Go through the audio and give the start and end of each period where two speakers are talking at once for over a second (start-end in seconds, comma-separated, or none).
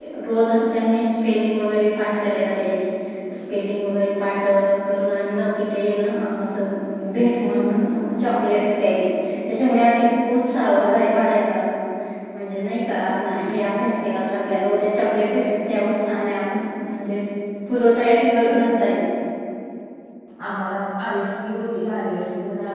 none